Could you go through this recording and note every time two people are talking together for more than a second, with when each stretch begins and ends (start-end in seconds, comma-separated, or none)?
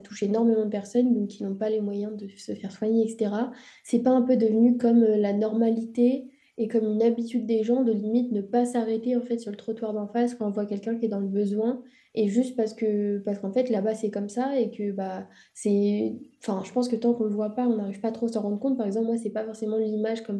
none